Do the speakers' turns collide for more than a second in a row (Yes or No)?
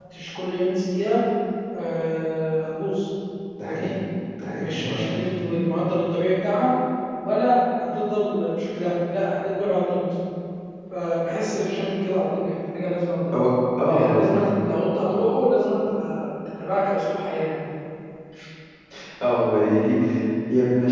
No